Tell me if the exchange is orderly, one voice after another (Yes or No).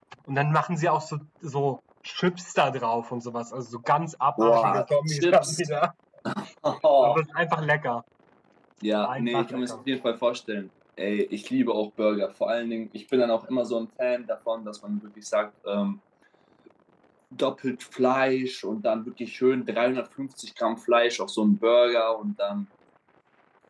No